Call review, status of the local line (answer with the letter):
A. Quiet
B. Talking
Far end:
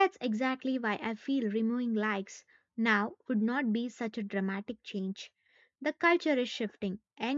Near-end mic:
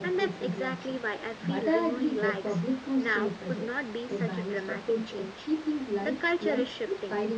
B